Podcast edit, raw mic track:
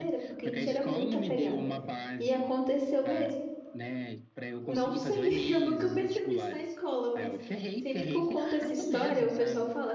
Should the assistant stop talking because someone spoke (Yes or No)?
Yes